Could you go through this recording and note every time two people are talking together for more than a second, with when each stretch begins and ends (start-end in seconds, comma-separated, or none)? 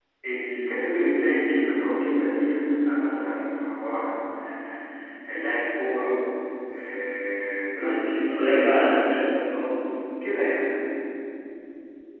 7.8-9.2